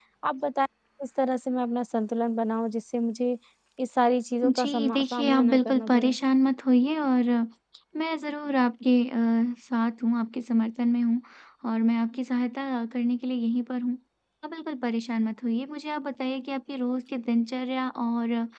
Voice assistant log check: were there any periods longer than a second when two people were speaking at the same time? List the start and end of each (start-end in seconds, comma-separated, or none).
4.6-6.2